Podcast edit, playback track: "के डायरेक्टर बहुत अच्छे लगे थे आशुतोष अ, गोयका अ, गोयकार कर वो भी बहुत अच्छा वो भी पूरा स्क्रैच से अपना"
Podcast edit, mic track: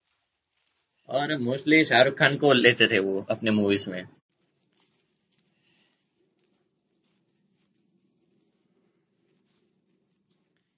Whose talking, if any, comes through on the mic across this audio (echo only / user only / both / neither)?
user only